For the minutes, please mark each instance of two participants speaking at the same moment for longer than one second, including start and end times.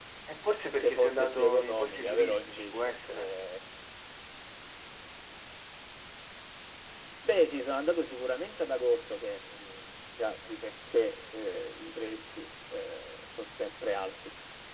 0.8-3.3

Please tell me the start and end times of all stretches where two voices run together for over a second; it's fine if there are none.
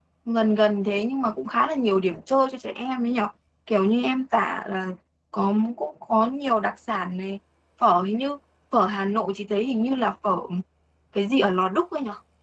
none

